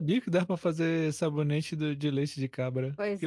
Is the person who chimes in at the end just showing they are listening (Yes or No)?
No